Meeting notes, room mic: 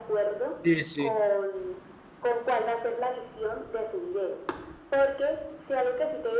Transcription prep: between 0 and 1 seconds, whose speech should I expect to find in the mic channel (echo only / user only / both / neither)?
both